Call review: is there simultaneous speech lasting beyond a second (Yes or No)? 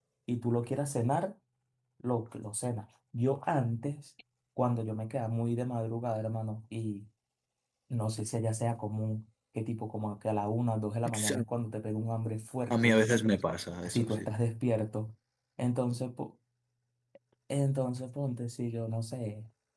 No